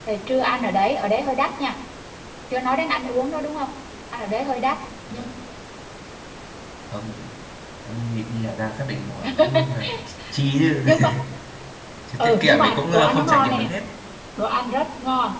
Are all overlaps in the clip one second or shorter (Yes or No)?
No